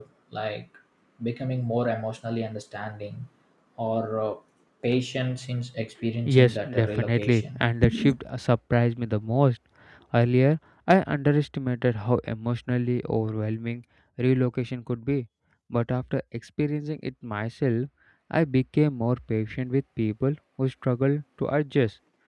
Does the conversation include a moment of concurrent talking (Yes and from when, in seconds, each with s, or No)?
Yes, from 6.2 s